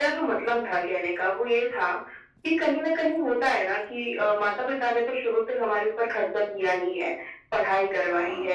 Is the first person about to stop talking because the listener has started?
No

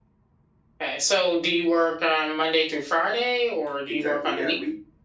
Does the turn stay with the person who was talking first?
No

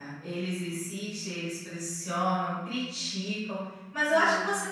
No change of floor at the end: Yes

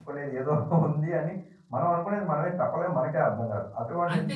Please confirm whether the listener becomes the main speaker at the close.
Yes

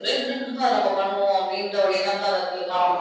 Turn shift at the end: Yes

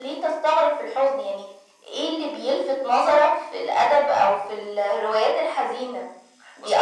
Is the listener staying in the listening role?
Yes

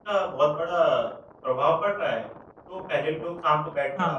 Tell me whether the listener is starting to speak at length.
No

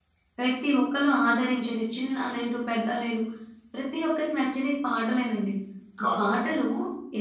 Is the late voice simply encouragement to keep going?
Yes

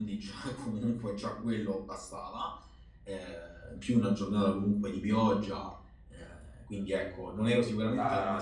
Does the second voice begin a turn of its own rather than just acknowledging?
Yes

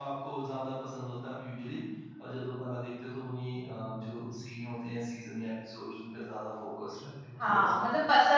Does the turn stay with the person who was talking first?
No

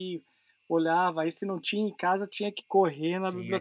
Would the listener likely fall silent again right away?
No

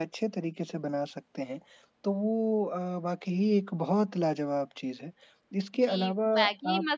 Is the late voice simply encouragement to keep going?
No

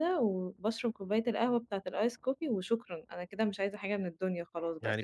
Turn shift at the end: Yes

